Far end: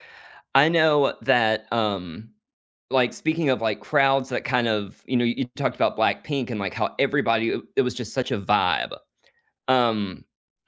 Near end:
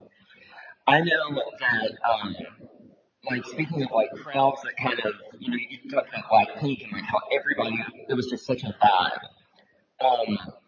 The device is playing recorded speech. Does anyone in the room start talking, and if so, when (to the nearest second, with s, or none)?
none